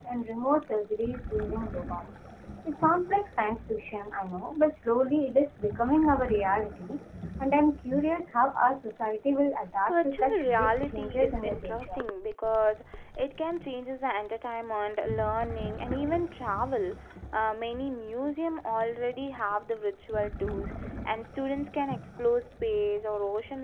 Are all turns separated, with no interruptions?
No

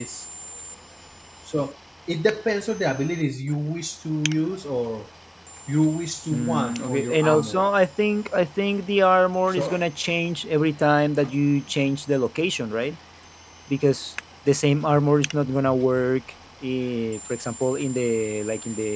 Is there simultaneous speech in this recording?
Yes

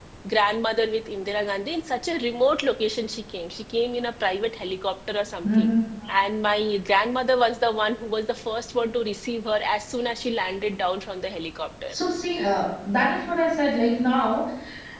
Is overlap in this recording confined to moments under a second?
Yes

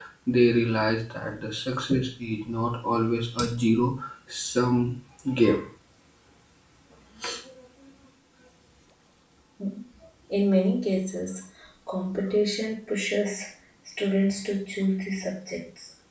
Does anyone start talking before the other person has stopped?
No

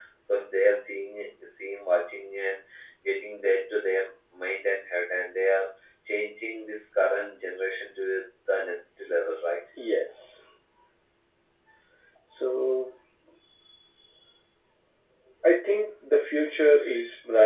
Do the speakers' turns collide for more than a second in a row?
No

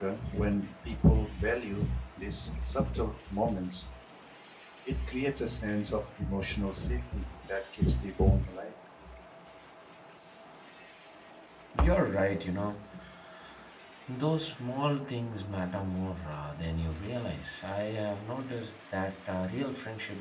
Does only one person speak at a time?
Yes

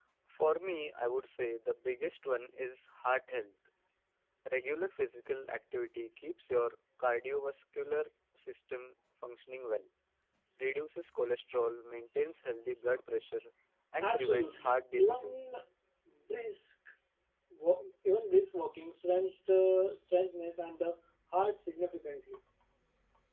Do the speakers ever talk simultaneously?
Yes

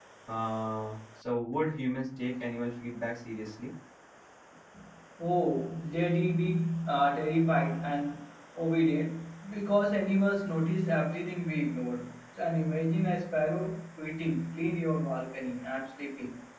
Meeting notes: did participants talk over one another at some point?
No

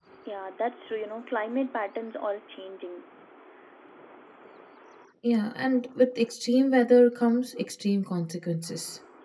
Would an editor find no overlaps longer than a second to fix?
Yes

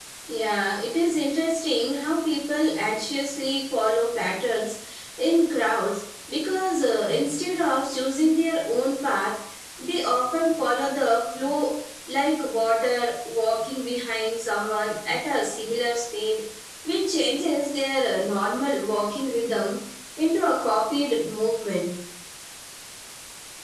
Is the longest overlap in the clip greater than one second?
No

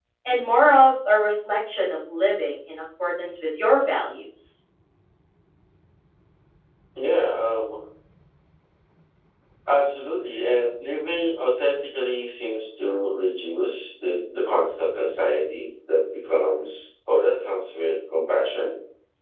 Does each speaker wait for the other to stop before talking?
Yes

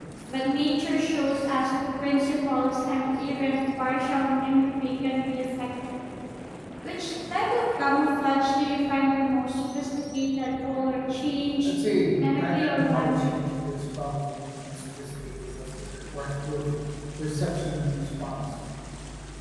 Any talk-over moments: Yes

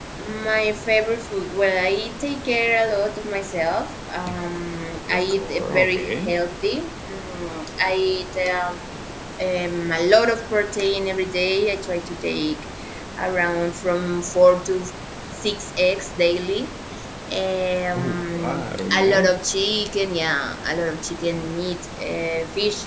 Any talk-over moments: Yes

